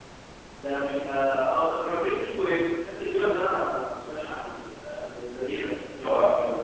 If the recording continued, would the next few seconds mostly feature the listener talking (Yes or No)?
Yes